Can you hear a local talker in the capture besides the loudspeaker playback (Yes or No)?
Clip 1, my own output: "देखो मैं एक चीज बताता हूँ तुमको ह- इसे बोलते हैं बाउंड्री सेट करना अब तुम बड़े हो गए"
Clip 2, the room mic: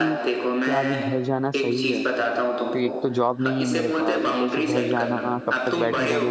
Yes